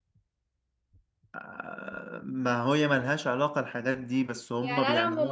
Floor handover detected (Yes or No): Yes